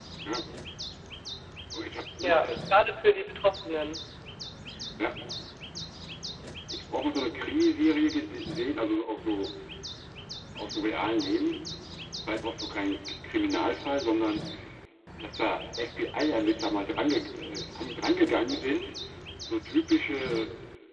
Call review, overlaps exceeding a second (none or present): none